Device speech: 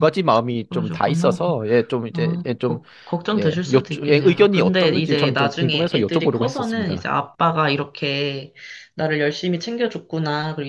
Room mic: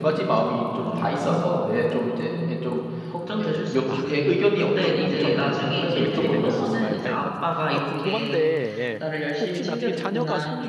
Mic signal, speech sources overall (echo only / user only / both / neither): both